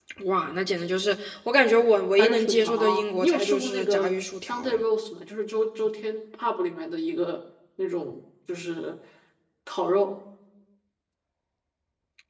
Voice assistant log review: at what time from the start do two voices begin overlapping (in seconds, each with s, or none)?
2.2 s